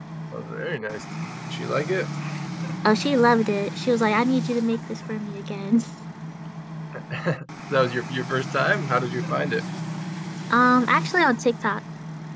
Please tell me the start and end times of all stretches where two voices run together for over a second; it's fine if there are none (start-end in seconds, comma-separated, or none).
none